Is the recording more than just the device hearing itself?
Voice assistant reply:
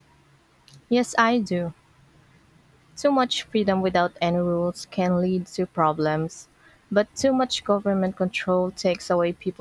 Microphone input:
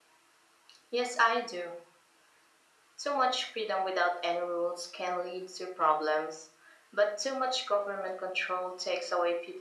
No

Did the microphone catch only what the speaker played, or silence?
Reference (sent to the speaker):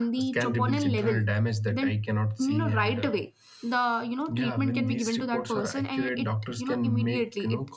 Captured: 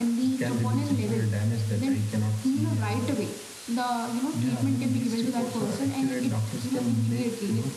Yes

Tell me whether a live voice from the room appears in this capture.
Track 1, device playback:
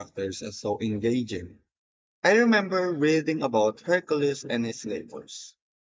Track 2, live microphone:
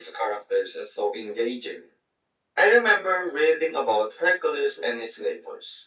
No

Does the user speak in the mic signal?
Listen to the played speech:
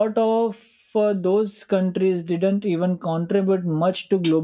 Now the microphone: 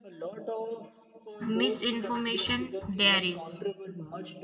Yes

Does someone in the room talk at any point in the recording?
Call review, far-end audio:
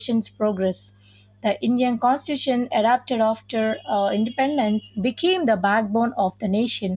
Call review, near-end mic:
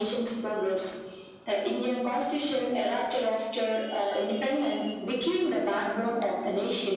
No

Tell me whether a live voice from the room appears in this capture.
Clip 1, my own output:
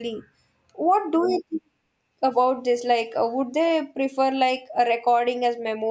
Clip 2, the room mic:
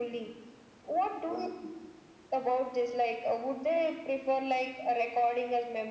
No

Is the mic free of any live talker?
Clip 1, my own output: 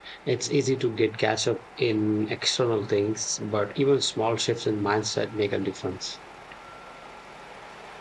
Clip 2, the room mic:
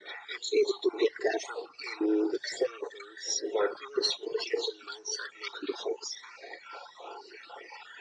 Yes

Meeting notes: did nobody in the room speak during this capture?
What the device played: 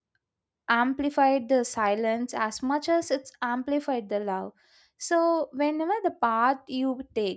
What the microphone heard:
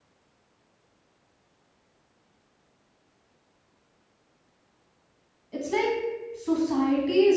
No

